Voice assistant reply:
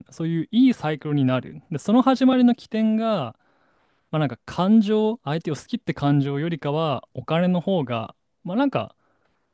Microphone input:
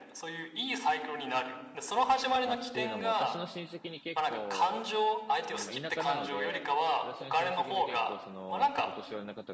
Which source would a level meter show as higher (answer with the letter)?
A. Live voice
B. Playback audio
B